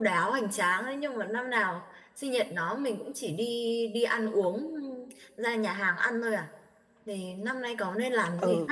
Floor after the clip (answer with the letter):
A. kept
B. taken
B